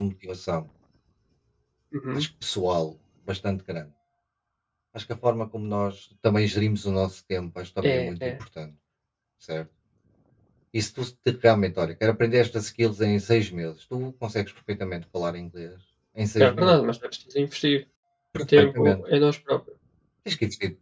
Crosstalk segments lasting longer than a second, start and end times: none

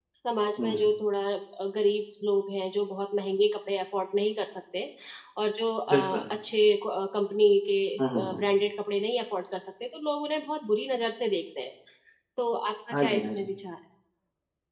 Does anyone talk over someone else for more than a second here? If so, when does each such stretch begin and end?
none

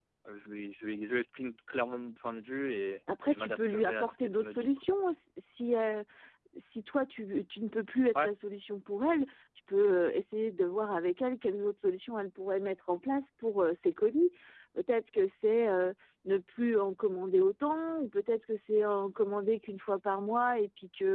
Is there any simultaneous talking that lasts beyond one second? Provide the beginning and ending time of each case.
3.3-4.9

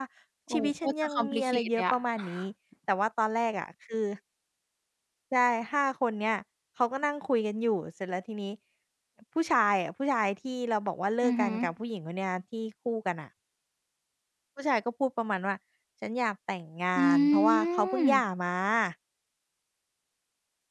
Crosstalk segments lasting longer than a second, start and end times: 0.5-1.9, 17.0-18.2

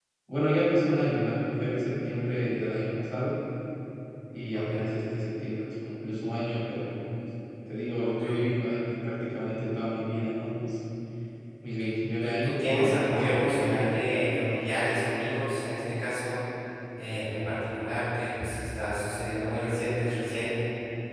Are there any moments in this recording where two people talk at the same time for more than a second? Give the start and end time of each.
12.2-13.9

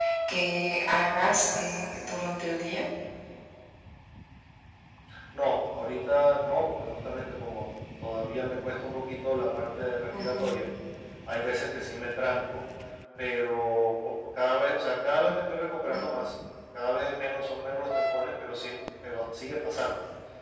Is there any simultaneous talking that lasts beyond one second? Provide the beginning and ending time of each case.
none

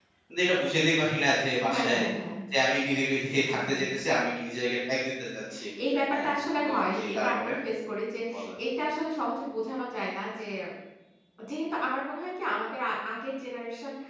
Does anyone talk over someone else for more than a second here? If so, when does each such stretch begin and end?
6.1-7.5

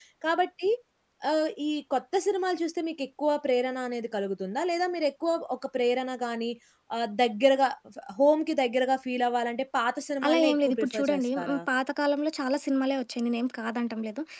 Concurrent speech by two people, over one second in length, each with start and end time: 10.2-11.6

